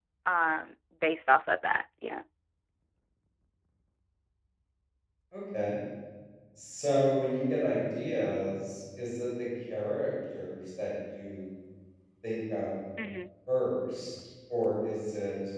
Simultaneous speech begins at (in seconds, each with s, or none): none